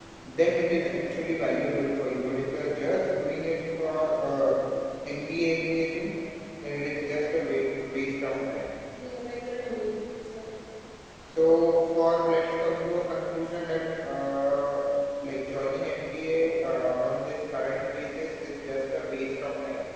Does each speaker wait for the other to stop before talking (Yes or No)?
Yes